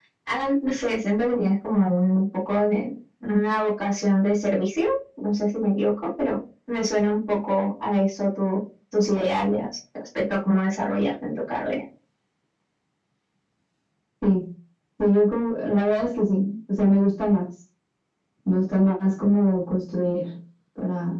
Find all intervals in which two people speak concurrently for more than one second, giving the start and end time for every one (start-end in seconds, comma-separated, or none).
none